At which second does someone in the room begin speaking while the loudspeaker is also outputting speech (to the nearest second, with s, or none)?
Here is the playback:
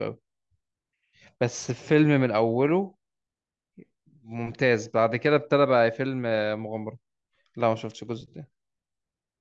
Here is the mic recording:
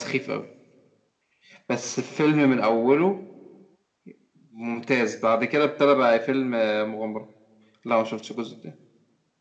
none